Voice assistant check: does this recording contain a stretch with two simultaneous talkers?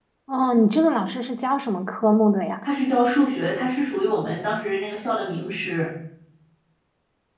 No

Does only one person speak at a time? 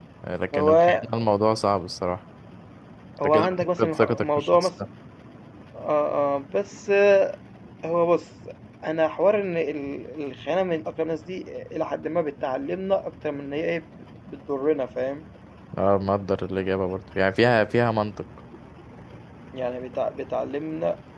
No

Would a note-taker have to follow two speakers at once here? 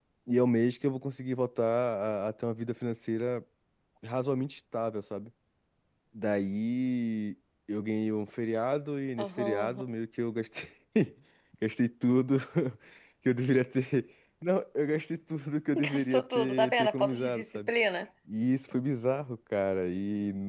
Yes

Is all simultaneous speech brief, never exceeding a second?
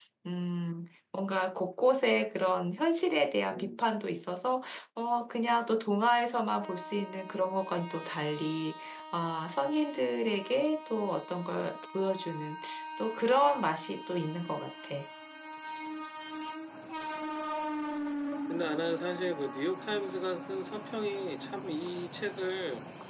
Yes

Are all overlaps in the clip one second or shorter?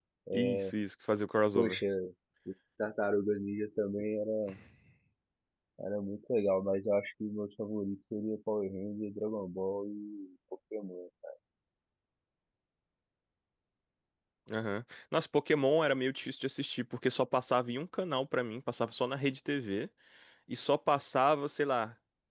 Yes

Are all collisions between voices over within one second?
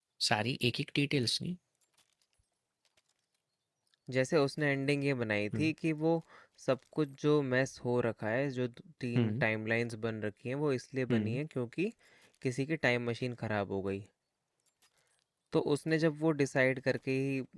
Yes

